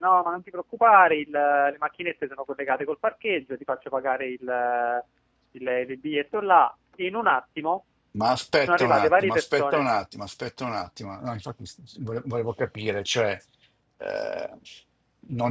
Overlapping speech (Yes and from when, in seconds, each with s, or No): Yes, from 8.6 s